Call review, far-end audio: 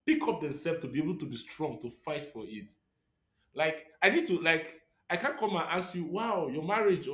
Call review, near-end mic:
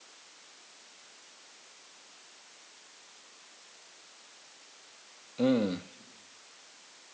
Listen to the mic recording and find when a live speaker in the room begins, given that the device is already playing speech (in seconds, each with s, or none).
5.4 s